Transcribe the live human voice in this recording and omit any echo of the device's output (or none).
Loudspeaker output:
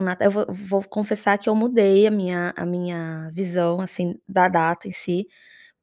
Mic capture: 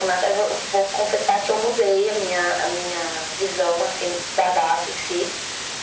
none